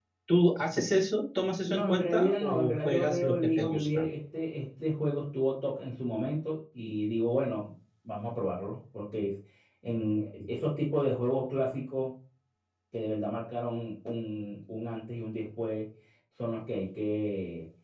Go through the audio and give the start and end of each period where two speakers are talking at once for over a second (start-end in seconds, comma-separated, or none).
1.6-4.0